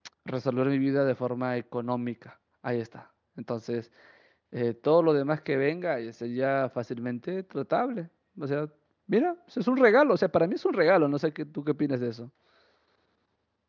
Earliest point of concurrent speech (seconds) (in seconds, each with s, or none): none